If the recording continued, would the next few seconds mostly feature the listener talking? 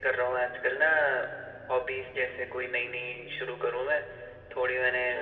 No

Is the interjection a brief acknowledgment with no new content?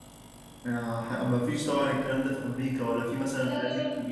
No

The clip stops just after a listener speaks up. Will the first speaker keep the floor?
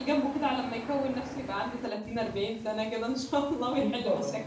No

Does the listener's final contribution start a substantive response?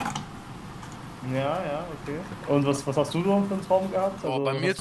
Yes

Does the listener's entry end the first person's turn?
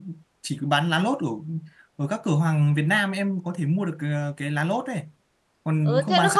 Yes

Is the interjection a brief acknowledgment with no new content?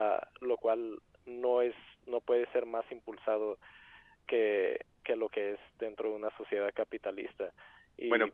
No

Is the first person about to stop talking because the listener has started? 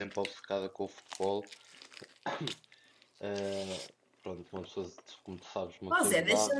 Yes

